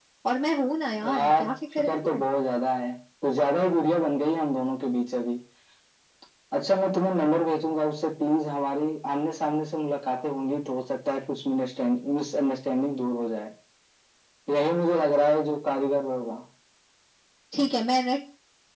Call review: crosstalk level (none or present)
present